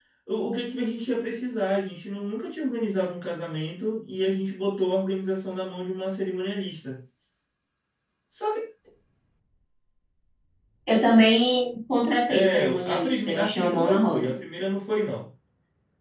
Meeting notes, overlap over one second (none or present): present